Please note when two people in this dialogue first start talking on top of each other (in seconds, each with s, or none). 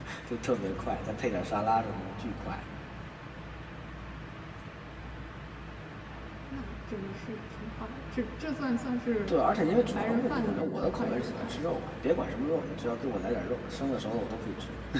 9.9 s